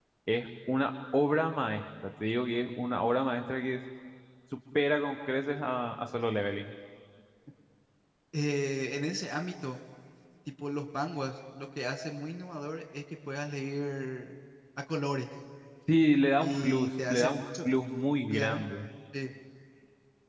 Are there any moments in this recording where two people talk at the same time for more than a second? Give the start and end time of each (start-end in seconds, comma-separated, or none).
16.4-17.7